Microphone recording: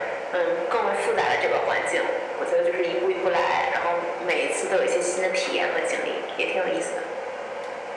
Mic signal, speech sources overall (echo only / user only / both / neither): echo only